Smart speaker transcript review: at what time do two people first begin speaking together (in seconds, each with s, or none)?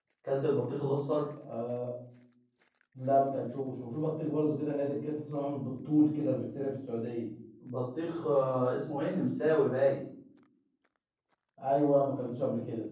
none